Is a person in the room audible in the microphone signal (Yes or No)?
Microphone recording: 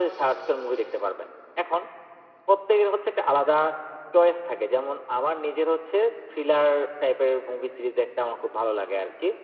No